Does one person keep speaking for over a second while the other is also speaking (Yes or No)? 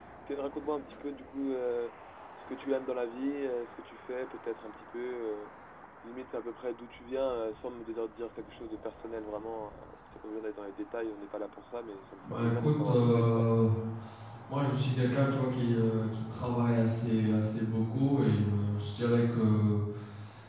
Yes